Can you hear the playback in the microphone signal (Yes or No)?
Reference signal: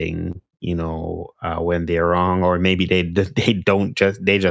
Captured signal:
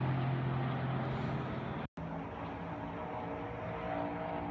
No